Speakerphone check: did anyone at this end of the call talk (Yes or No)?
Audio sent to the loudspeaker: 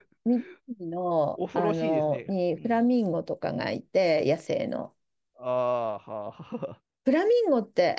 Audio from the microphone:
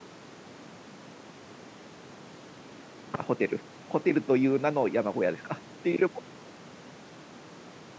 Yes